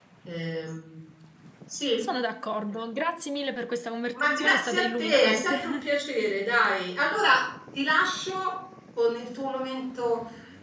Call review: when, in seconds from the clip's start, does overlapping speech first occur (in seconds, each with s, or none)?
4.2 s